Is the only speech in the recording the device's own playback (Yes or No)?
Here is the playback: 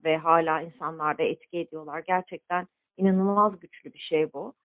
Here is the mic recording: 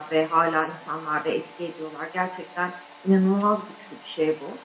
Yes